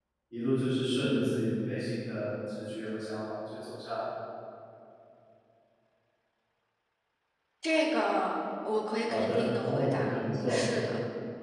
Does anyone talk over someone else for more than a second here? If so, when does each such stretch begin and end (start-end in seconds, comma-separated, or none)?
9.1-10.6